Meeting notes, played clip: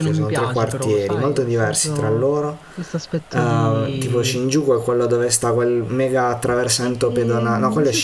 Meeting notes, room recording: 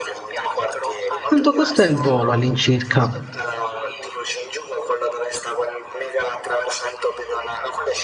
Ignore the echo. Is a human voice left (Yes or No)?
Yes